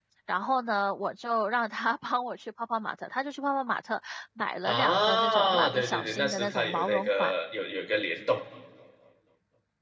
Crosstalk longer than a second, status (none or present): present